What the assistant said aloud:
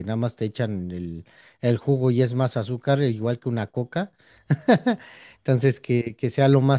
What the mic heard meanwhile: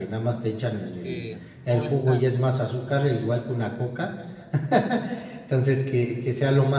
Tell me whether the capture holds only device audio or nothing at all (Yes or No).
No